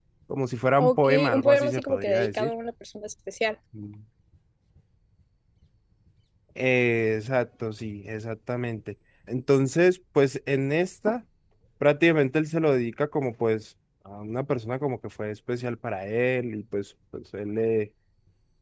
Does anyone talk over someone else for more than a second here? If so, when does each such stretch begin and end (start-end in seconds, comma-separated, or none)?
0.8-2.5